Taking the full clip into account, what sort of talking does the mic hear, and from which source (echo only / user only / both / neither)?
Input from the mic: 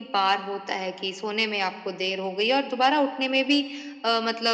echo only